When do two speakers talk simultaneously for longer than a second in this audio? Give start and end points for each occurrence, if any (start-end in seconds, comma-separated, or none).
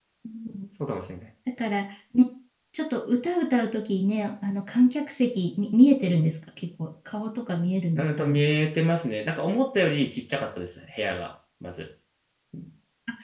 none